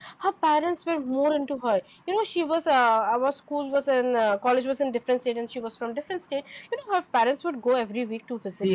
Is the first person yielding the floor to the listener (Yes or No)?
Yes